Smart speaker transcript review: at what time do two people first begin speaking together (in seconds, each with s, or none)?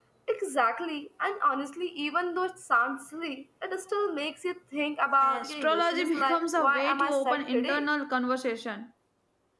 5.2 s